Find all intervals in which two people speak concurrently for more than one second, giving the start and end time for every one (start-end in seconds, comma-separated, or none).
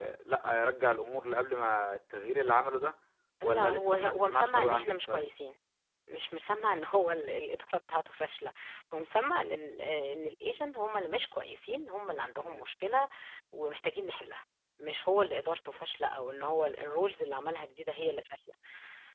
3.4-5.3